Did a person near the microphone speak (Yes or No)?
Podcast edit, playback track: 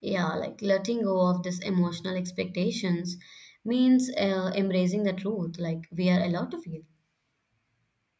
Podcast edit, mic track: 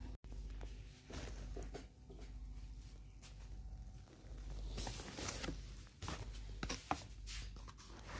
No